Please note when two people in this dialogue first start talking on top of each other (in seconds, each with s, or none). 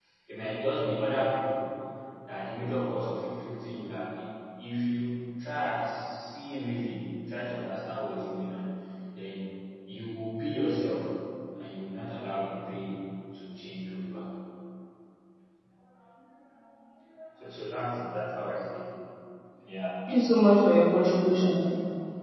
none